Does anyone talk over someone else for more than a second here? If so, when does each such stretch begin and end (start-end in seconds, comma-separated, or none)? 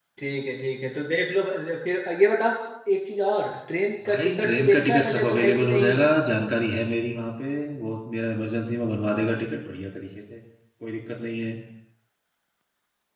4.0-6.1